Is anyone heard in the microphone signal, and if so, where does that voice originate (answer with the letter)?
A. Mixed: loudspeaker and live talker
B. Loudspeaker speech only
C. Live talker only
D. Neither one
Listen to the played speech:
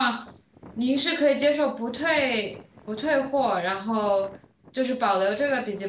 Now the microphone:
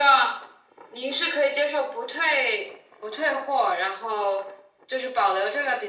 B